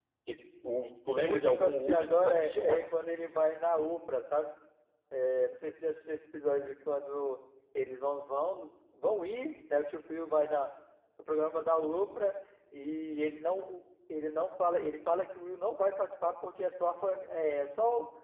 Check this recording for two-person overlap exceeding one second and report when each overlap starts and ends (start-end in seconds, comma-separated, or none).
1.2-2.8